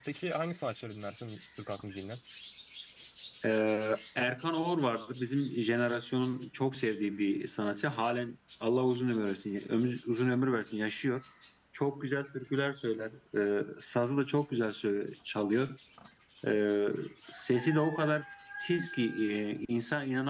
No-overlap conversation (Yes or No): Yes